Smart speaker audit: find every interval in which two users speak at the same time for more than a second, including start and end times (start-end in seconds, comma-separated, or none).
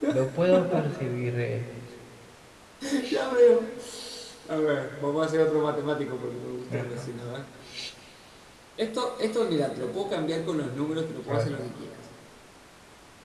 none